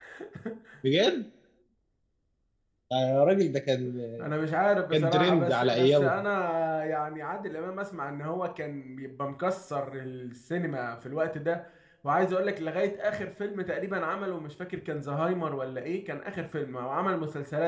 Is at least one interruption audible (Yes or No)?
Yes